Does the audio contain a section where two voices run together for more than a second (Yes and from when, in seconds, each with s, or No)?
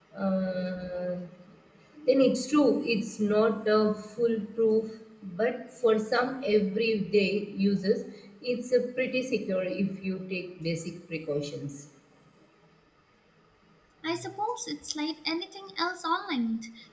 No